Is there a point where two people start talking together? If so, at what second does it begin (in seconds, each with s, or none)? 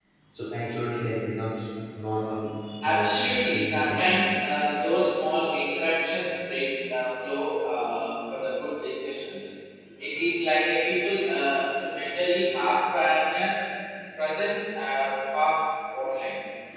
2.6 s